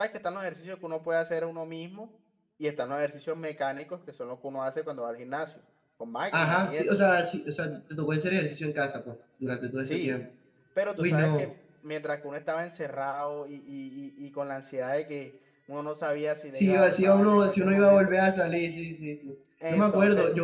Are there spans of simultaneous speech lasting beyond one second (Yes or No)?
Yes